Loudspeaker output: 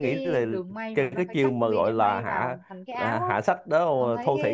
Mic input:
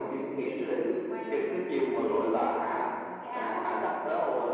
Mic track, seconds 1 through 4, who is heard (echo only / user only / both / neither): echo only